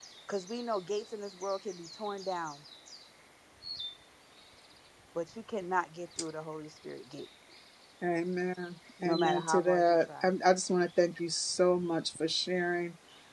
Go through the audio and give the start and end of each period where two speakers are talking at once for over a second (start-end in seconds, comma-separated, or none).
9.1-10.3